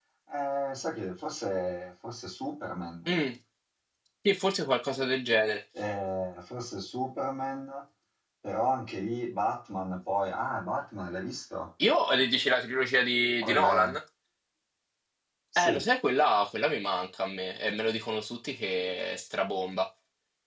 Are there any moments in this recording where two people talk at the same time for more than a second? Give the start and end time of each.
none

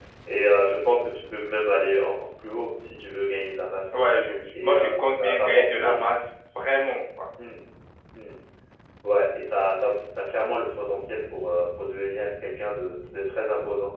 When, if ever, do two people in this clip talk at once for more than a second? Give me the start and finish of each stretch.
4.6-6.0

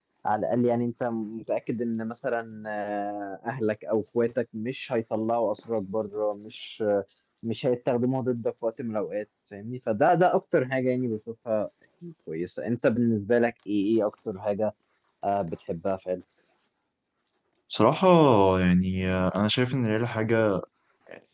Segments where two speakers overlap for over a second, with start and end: none

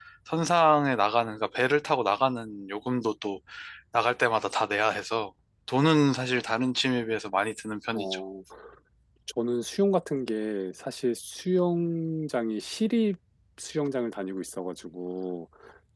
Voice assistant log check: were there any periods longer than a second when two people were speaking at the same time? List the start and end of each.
none

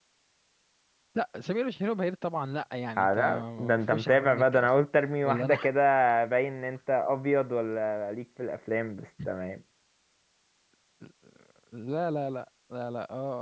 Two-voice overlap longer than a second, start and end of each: 3.0-4.7

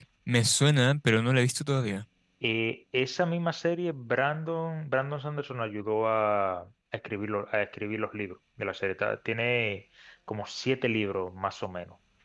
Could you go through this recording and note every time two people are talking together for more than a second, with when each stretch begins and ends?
none

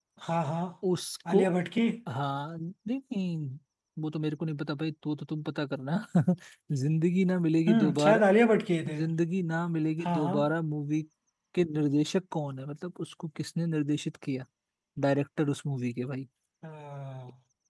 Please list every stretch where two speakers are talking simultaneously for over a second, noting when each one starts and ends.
none

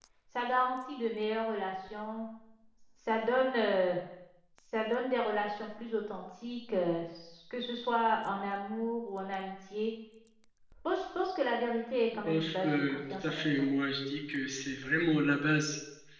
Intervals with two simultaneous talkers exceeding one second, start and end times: 12.2-13.7

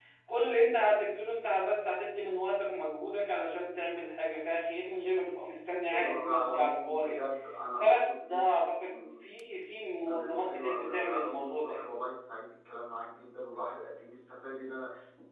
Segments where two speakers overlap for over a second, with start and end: 5.9-7.2, 7.8-9.1, 10.1-11.8

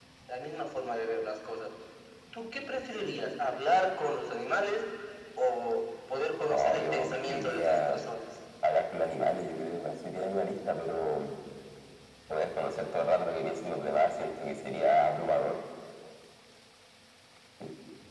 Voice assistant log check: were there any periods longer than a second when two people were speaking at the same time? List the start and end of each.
6.5-8.0

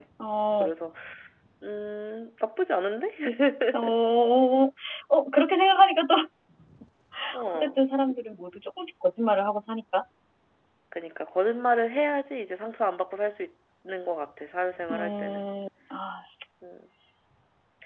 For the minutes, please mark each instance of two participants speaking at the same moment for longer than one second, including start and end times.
none

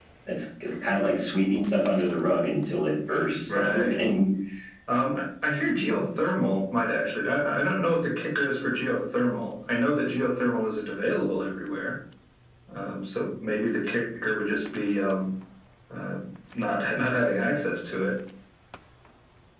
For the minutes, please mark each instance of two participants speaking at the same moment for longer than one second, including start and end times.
none

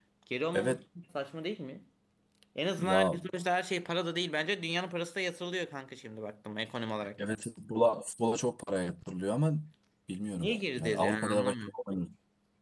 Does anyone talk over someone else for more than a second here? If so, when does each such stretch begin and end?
10.4-11.7

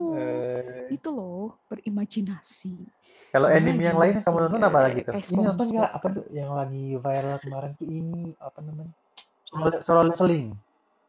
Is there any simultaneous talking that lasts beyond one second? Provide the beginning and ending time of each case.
3.5-6.1

